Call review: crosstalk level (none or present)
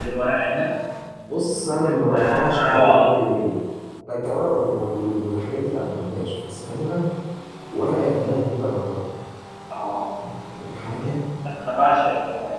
present